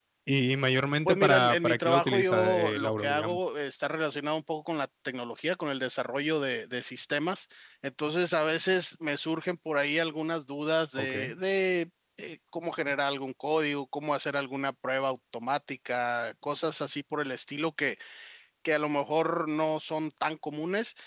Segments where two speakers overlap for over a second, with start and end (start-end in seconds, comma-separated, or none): 1.1-3.4